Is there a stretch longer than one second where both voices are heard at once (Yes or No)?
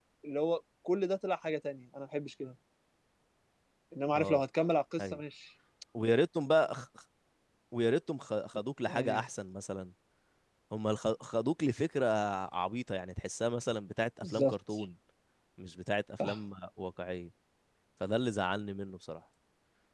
No